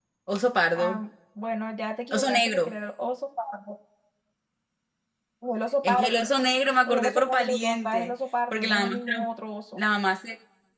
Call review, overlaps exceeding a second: present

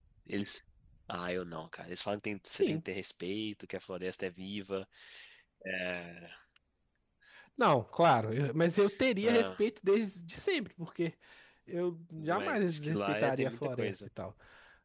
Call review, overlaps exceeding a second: present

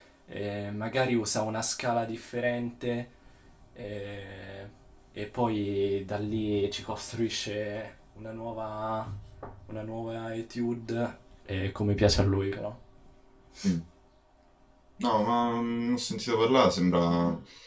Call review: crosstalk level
none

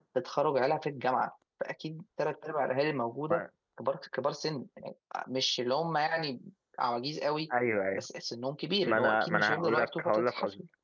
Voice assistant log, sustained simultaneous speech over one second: present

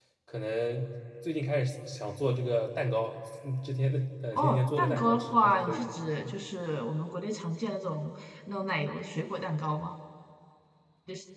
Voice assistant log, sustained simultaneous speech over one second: present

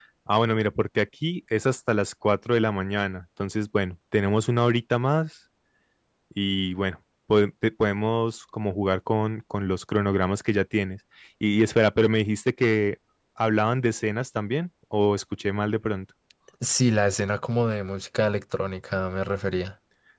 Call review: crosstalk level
none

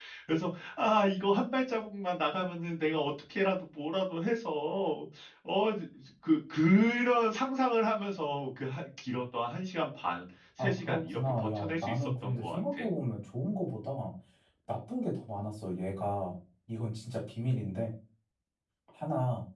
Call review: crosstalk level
present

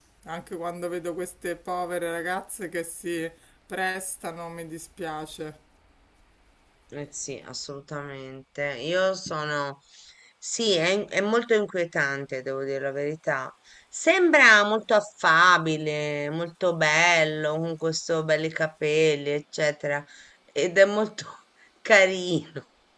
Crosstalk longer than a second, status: none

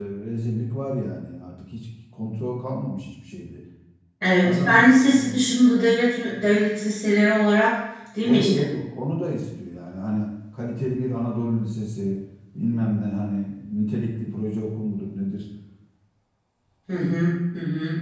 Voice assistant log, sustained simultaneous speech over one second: none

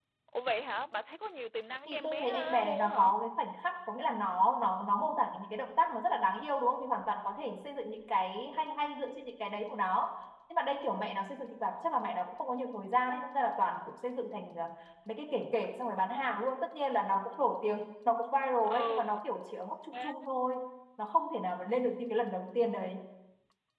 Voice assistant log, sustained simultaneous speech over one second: present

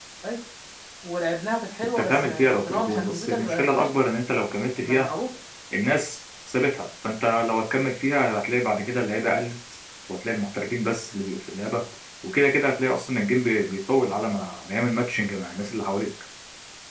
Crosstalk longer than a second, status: present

